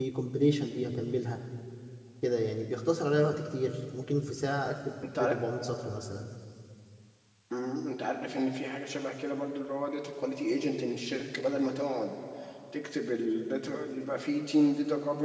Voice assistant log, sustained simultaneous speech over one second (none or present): none